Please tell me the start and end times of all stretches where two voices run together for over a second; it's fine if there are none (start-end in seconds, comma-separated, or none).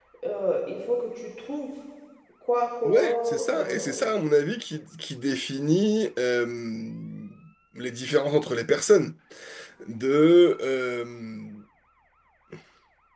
2.9-4.1